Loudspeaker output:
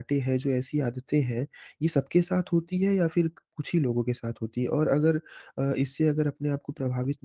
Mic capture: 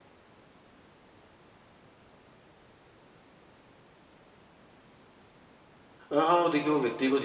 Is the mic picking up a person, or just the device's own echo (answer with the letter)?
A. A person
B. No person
A